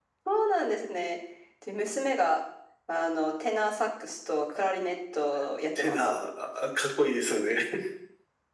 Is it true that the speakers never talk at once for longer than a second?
Yes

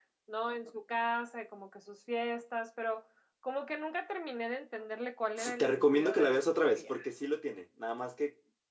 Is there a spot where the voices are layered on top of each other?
Yes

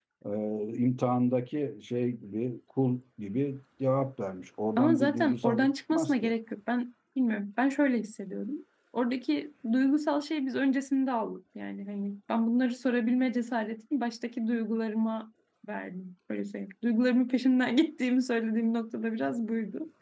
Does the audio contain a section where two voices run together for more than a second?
Yes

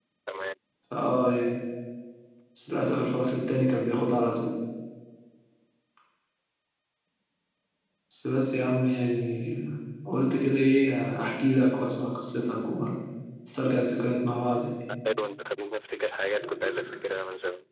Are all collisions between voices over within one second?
Yes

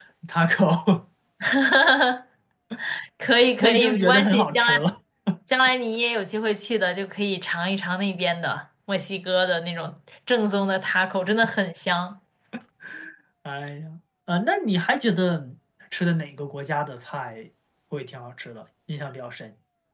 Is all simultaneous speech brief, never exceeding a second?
No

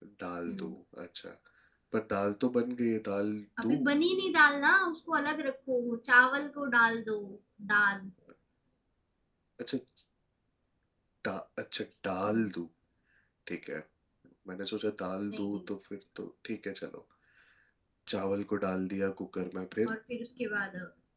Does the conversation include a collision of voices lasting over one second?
No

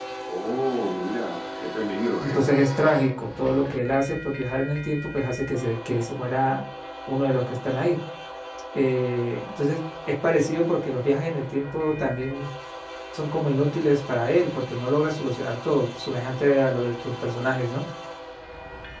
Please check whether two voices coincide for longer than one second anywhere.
No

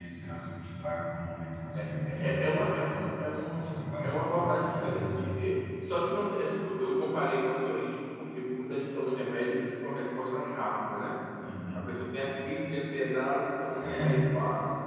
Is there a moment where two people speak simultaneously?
Yes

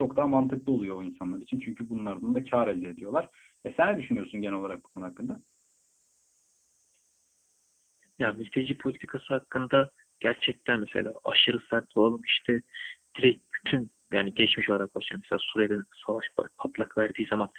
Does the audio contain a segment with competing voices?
No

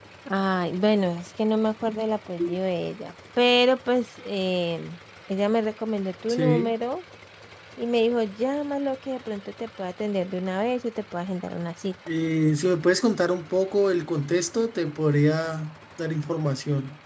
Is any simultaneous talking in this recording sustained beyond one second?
No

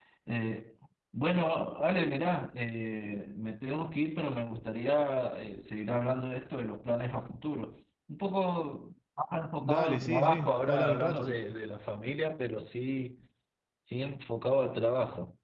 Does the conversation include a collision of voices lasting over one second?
Yes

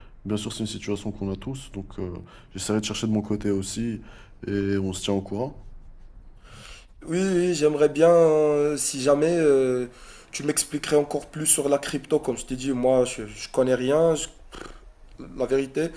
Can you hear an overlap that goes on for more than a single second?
No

